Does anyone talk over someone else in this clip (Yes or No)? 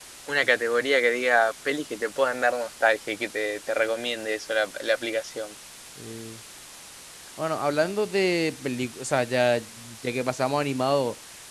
No